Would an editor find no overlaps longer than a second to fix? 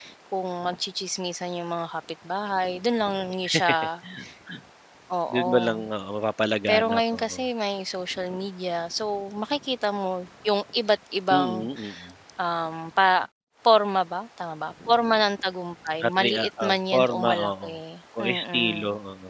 No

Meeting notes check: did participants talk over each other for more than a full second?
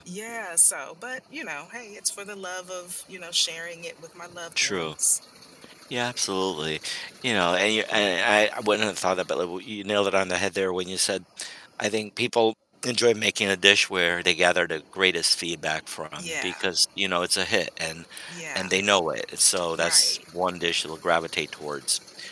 No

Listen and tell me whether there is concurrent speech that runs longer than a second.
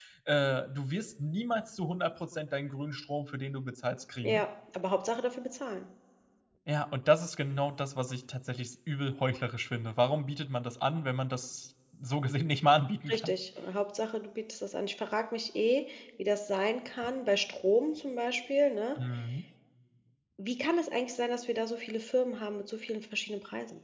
No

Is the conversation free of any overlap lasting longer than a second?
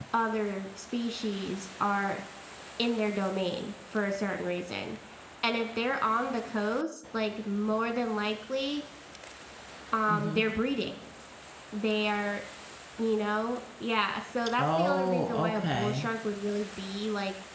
No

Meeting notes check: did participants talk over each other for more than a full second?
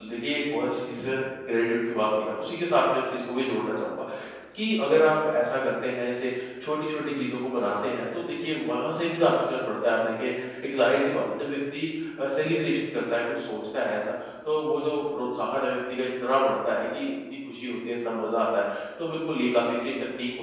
No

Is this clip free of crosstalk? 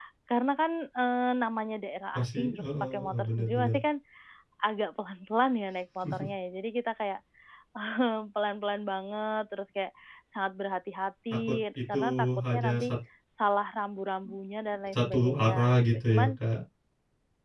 No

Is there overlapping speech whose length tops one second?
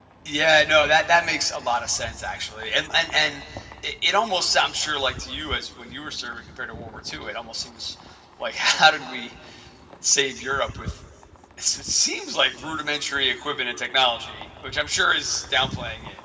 No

